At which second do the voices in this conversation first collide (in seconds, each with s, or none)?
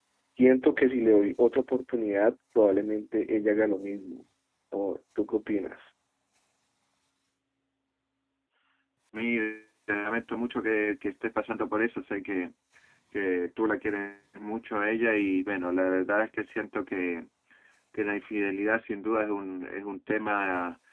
none